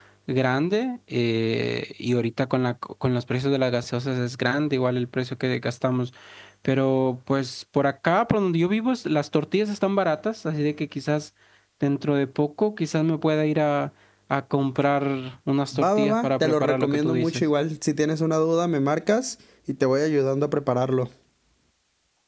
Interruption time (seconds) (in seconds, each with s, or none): 15.7 s